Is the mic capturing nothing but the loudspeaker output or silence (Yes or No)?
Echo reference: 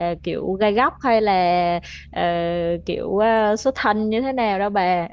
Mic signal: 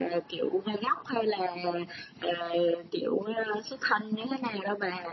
Yes